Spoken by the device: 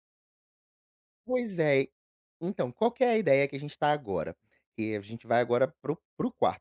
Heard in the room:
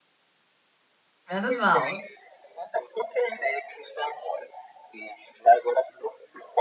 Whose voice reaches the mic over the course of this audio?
both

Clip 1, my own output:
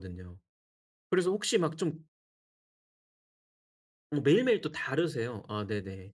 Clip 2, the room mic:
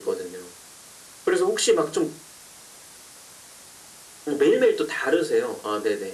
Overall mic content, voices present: echo only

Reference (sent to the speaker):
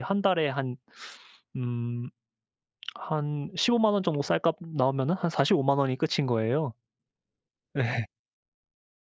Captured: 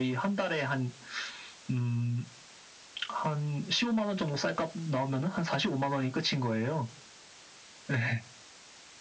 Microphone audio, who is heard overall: echo only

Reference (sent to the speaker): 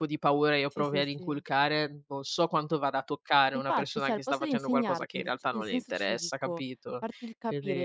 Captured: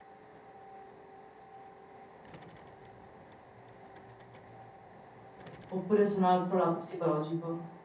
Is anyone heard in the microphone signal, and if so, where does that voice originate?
user only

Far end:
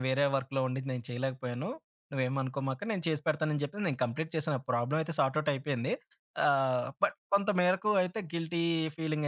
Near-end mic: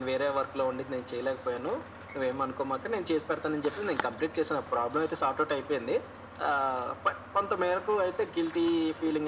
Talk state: echo only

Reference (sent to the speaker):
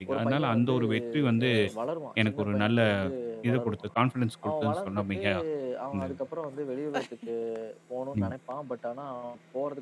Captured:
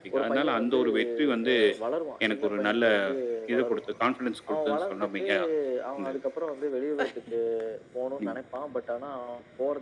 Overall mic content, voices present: echo only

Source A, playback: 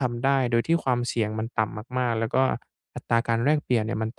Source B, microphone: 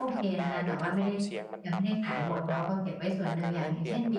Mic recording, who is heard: both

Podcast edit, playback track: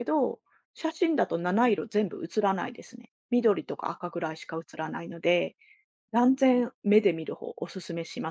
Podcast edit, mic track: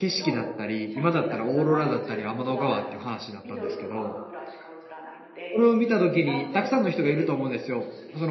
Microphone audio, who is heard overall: both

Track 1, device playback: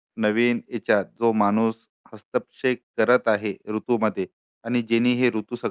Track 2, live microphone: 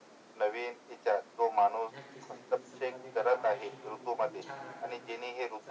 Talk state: both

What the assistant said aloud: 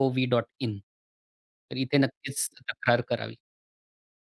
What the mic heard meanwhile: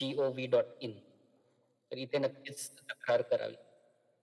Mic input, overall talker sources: echo only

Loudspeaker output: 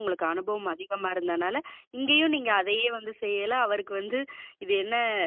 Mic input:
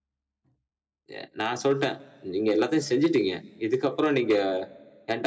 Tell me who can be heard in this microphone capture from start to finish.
user only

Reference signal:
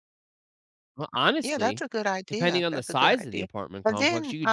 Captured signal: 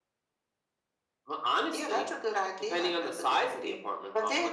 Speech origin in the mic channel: echo only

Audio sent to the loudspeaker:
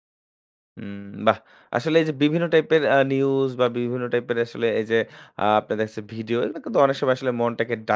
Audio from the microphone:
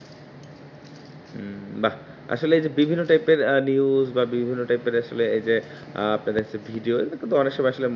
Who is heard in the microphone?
echo only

